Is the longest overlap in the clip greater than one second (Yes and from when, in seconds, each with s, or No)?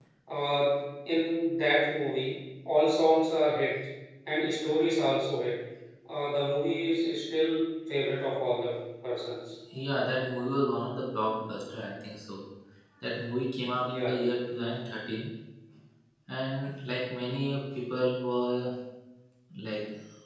No